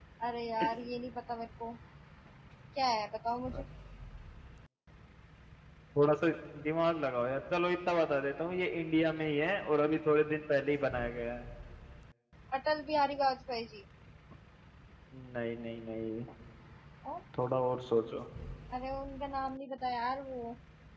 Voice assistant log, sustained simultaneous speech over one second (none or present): none